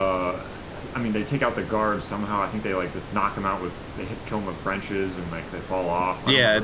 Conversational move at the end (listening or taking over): taking over